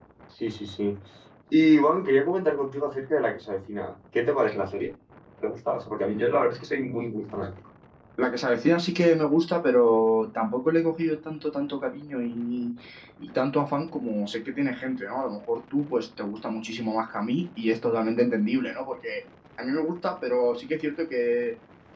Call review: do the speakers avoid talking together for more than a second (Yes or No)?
Yes